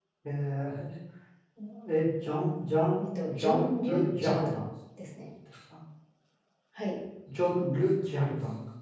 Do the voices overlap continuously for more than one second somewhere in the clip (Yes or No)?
Yes